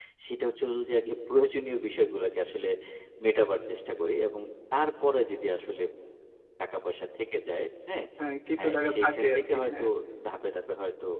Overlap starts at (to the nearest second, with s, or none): 9 s